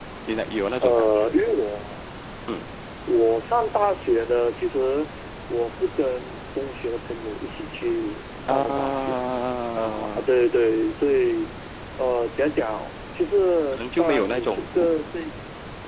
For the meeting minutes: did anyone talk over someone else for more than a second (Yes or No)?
Yes